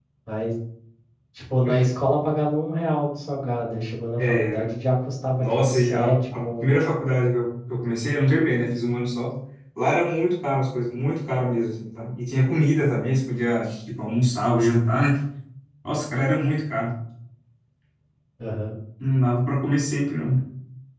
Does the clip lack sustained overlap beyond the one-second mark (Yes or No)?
No